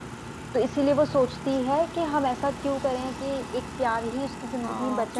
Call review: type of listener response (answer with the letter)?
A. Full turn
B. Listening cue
A